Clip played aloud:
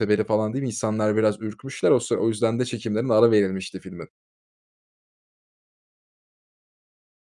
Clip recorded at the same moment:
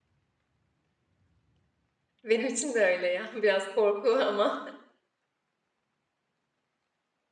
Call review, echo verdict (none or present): none